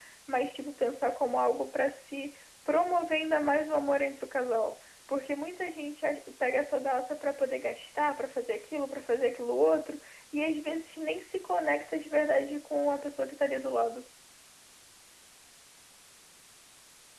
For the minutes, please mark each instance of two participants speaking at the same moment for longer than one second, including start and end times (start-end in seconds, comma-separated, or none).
none